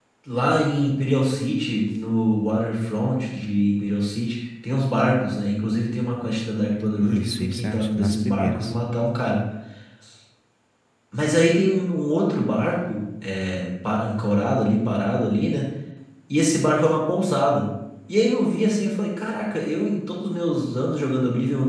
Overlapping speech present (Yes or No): Yes